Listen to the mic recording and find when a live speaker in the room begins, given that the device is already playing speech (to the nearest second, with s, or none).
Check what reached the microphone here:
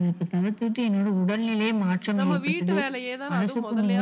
2 s